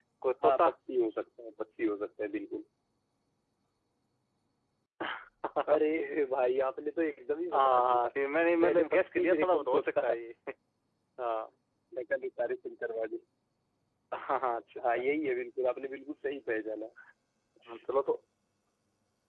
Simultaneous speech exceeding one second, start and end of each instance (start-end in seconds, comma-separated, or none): 8.6-10.1